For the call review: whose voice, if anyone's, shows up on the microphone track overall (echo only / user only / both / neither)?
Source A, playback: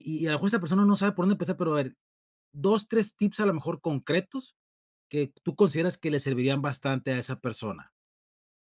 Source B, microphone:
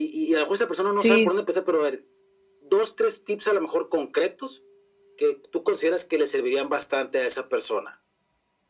both